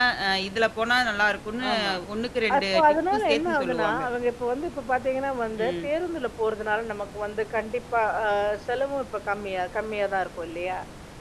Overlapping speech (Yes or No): Yes